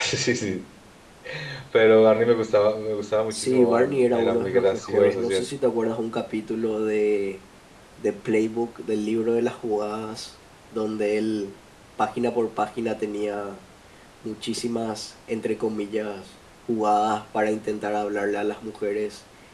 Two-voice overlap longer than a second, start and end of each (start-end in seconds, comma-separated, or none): 3.3-5.4